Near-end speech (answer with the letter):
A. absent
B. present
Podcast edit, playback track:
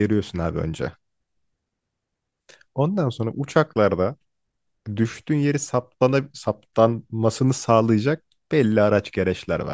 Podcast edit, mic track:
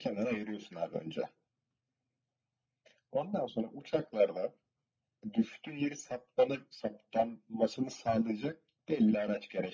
A